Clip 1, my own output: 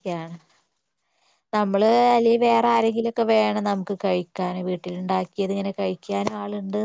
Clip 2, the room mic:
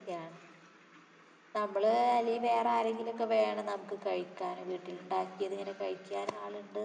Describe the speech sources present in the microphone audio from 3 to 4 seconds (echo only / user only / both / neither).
echo only